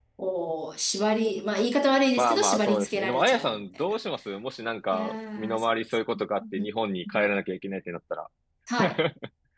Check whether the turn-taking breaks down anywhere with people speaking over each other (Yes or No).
Yes